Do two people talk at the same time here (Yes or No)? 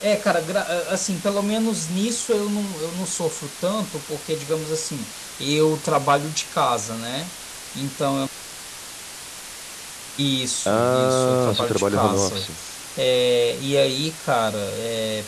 Yes